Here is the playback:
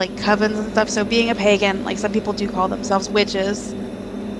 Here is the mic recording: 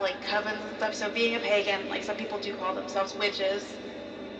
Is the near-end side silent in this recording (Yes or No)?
Yes